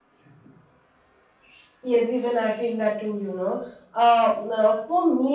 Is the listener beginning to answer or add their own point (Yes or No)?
No